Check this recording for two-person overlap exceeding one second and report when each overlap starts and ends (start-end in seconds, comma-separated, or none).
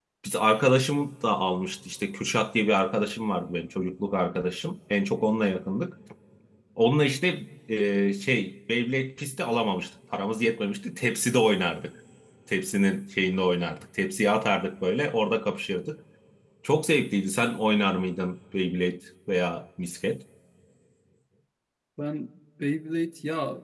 none